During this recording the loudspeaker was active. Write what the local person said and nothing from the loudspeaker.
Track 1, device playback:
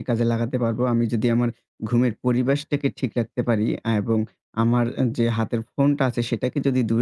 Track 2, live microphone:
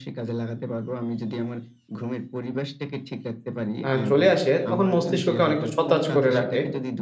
আ চলে আসে তখন মস্তিষ্ককে অনেকটা সতেজ করে রাখে।

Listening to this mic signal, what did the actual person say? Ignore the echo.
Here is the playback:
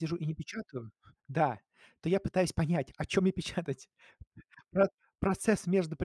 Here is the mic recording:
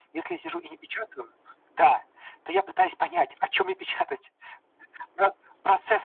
none

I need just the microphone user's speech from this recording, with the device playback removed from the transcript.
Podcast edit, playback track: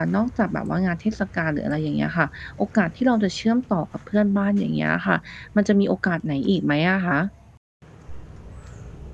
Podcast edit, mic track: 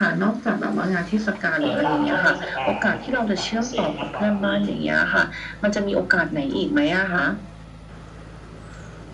เอ่อ ตามช่วงเทศกาลอะ มันจะเป็นโอกาสพิเศษมากกว่าที่

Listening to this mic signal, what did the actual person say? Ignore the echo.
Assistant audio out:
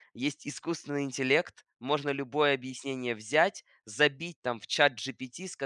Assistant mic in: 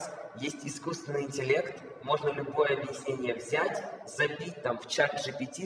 none

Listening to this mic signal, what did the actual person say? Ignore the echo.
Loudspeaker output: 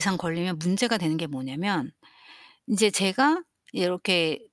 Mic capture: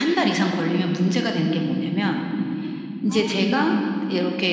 아 네네.

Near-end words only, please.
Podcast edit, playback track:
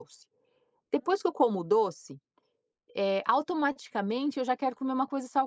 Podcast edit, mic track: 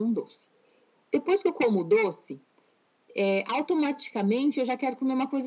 none

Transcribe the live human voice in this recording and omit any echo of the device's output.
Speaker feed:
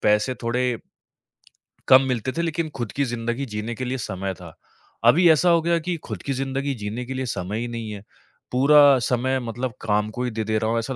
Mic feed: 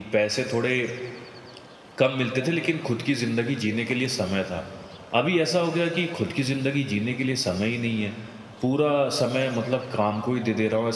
none

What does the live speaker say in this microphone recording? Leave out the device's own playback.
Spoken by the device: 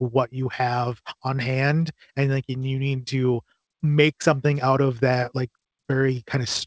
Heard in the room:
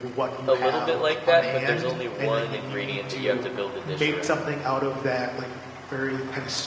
a little bit like that, but there's only 1 ingredient that you have to build the dish around,

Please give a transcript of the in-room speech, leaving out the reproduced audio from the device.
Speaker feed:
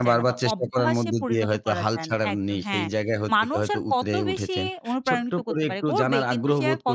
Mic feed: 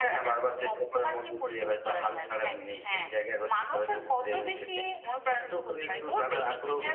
none

